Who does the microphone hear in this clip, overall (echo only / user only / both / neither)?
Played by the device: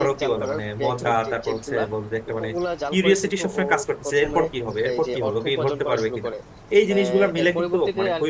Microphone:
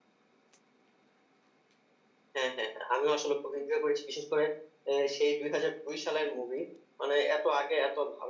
user only